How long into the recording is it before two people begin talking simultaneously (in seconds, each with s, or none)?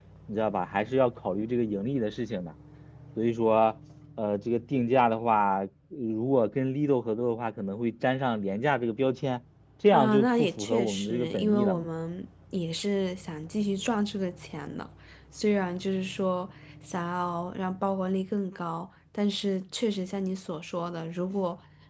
9.9 s